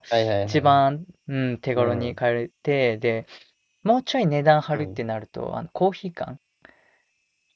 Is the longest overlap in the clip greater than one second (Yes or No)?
No